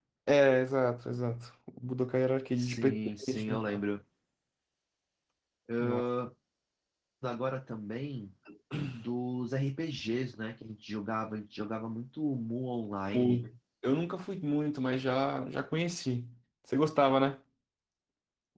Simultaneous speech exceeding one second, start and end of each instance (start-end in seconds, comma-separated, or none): 2.6-3.8